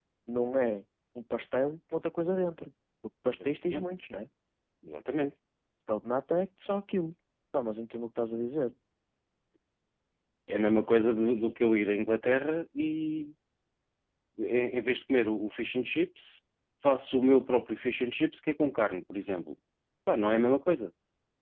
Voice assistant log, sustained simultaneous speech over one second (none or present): none